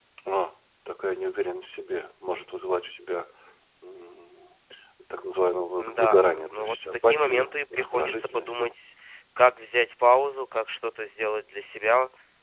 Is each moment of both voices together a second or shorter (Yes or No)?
No